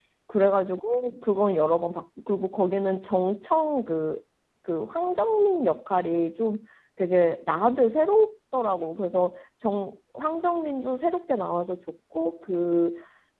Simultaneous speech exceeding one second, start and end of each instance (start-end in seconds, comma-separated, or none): none